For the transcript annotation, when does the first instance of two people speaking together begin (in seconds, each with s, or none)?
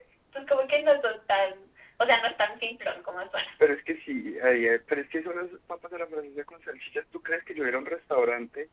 none